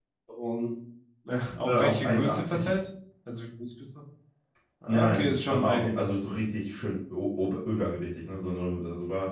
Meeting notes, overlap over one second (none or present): present